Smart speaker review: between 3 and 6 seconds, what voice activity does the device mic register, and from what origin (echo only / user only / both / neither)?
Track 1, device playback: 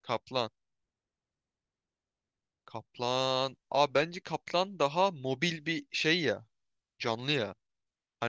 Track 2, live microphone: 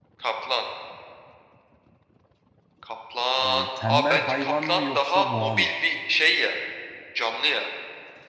both